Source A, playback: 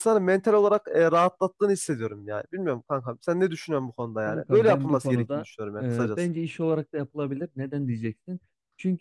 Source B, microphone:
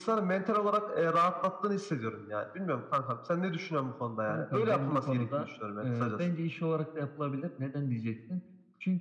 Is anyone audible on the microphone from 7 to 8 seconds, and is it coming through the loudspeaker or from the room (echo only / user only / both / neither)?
echo only